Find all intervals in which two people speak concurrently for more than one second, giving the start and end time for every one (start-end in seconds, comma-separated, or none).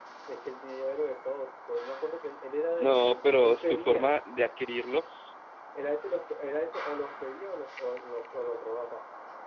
2.7-4.2